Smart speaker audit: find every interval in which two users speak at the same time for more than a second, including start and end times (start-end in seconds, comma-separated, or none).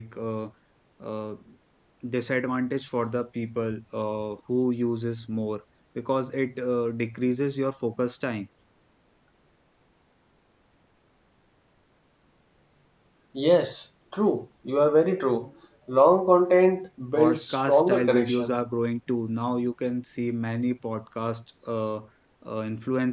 17.1-18.5